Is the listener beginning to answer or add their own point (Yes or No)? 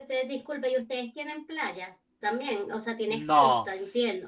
Yes